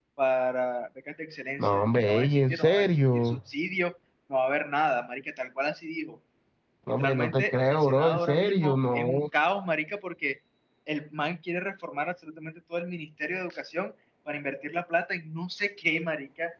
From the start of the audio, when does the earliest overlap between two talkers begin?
1.6 s

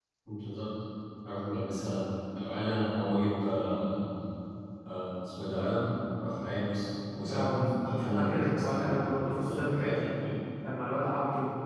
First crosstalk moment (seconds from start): 7.2 s

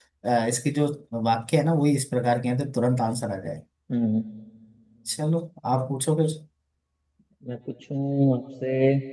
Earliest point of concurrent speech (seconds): none

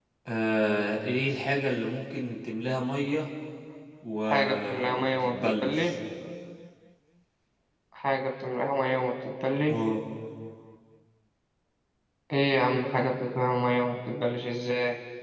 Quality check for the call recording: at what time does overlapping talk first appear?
4.2 s

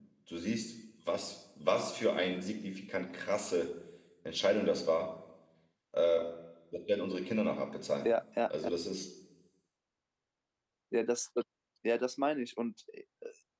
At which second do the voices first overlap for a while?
none

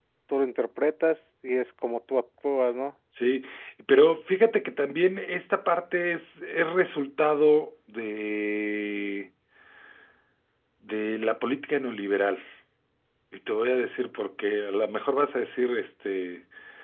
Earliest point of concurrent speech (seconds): none

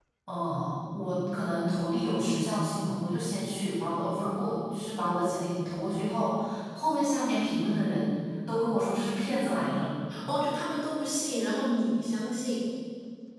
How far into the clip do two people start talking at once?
none

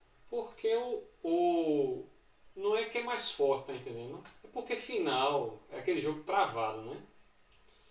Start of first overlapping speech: none

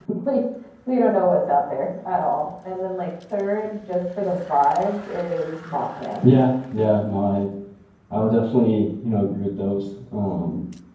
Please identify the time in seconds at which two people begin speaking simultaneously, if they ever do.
none

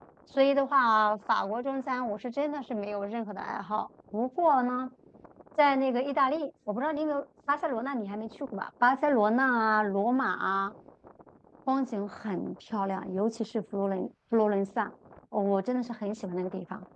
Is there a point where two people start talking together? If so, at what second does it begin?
none

